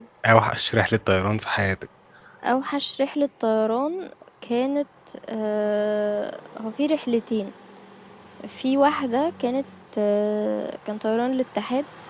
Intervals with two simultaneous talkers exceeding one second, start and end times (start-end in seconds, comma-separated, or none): none